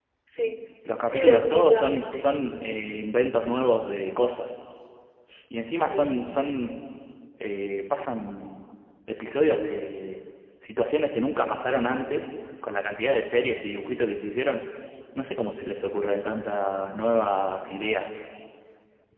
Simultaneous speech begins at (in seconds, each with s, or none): 1.0 s